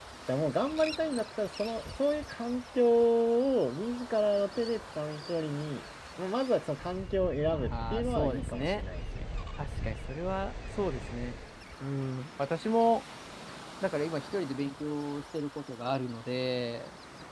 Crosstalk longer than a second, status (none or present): present